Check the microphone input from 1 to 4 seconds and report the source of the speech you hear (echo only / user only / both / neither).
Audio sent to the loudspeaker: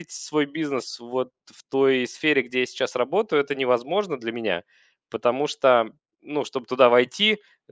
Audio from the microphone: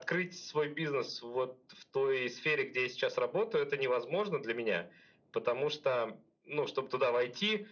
echo only